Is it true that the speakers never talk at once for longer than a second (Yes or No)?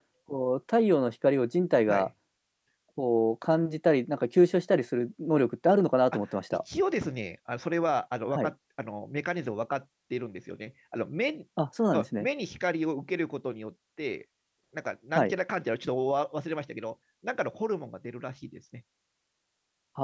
Yes